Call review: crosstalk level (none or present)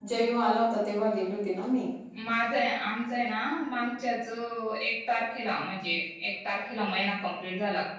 none